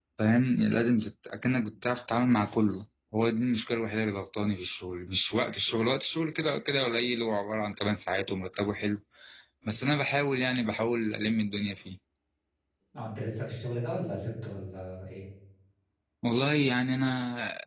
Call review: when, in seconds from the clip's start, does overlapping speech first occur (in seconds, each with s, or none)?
none